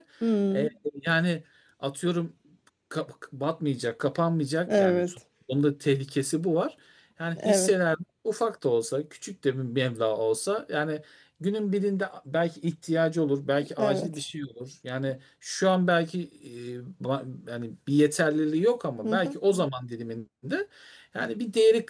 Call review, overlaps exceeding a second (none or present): none